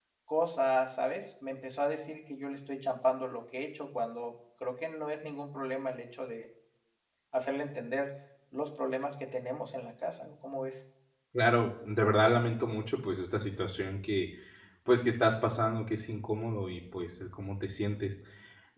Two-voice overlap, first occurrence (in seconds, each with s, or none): none